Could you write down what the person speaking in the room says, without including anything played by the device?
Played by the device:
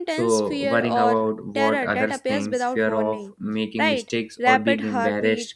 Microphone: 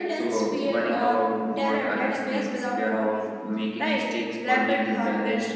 none

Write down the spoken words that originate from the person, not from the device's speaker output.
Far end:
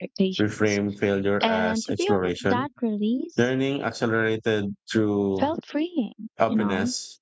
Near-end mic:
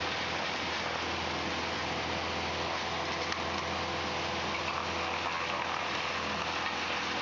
none

